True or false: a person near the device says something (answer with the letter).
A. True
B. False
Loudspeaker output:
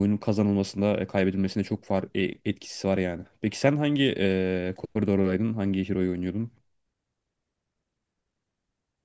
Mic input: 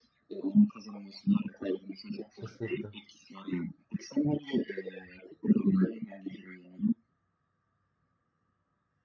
A